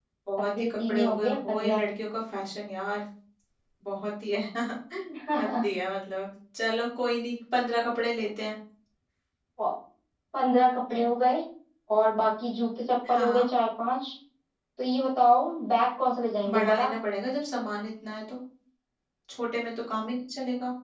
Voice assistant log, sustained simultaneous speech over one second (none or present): present